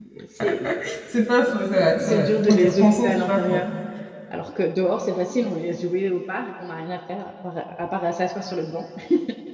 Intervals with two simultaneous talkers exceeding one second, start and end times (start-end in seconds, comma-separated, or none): 2.0-3.6